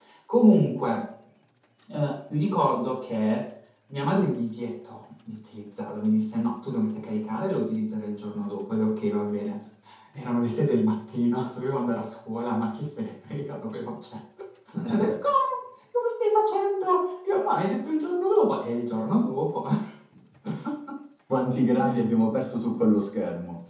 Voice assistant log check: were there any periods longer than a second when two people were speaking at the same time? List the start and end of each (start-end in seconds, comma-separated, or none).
none